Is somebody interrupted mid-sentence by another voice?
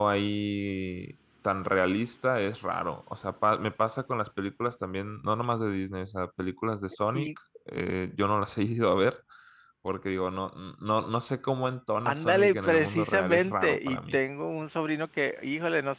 Yes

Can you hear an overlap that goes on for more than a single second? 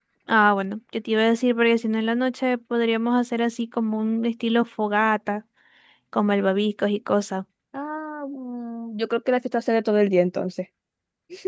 No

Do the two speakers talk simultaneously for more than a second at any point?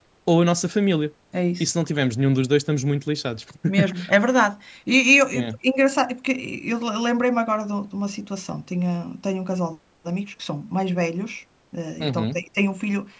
No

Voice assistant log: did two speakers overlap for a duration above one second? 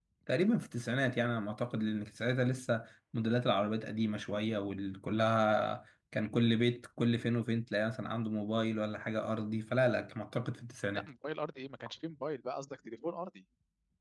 No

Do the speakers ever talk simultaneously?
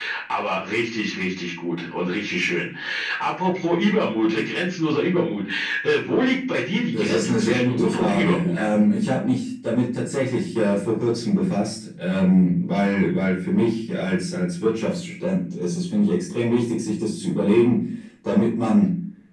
Yes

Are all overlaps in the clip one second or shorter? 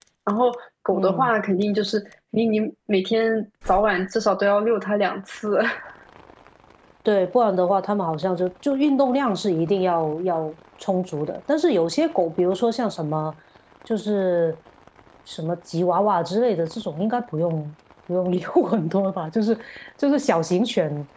Yes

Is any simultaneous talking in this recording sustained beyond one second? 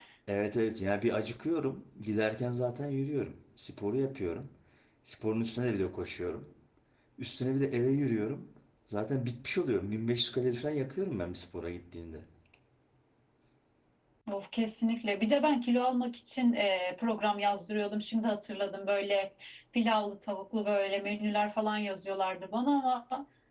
No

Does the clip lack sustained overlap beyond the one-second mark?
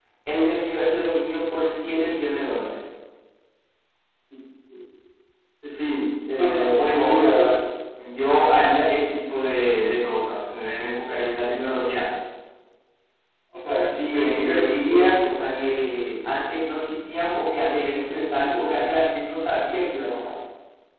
No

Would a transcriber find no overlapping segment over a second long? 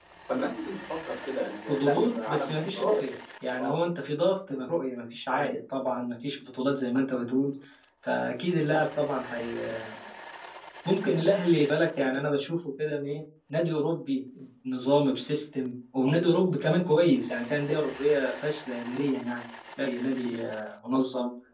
No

